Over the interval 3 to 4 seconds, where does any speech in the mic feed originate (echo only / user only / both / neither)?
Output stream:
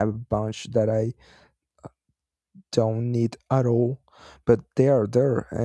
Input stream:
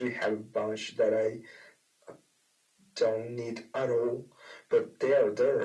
echo only